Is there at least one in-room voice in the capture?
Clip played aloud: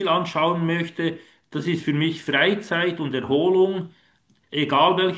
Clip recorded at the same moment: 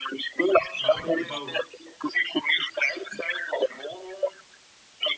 Yes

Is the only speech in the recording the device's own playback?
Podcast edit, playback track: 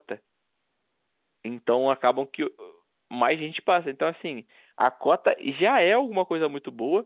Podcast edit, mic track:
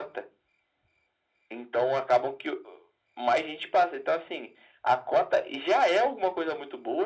Yes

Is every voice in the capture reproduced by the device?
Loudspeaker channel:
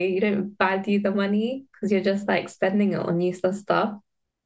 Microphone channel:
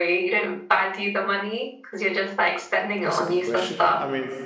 No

